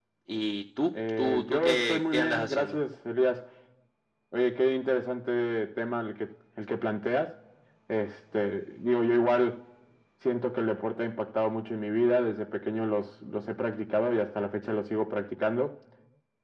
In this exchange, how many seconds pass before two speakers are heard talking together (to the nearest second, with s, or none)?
1 s